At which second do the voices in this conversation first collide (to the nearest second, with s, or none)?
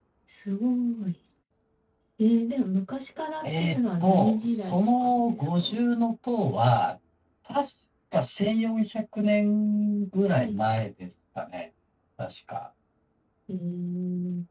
3 s